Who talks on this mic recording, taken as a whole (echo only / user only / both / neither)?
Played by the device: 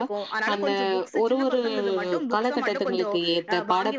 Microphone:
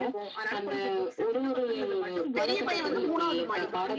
both